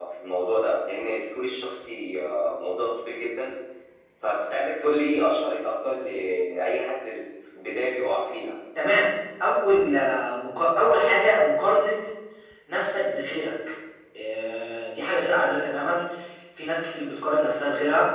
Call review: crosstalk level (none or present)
none